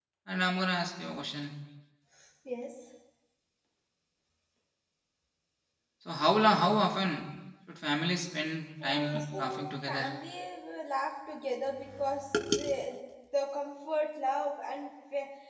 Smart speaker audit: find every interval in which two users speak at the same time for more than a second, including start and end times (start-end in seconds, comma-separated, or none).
8.8-10.1